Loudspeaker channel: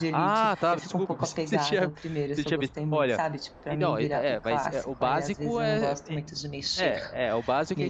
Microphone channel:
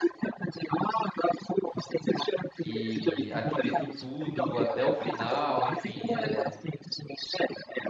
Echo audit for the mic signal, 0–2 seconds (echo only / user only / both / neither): echo only